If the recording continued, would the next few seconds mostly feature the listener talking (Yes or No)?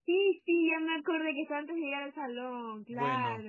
Yes